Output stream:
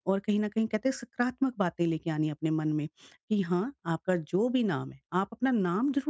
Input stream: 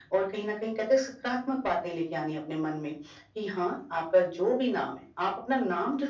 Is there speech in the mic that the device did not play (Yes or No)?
No